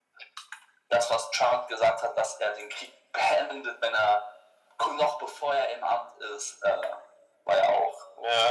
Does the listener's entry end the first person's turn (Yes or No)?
Yes